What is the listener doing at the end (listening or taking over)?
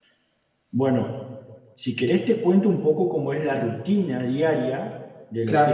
taking over